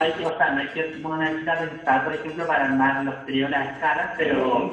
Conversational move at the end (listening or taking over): listening